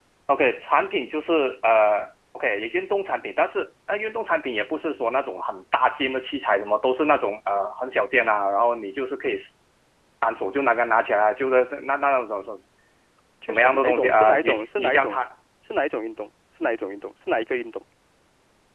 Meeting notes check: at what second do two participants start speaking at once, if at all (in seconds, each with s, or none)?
13.4 s